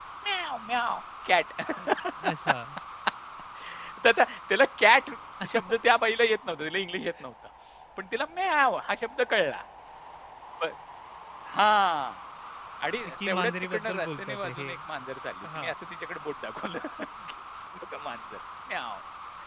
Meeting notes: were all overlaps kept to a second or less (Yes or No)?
No